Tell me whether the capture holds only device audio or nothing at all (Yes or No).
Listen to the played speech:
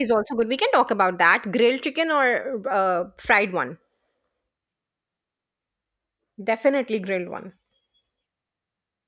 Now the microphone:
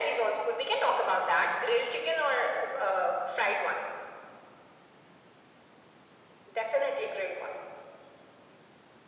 Yes